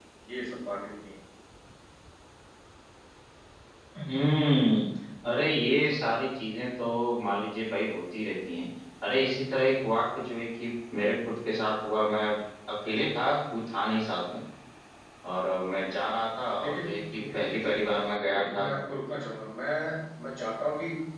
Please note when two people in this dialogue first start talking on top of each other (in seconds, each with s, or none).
16.6 s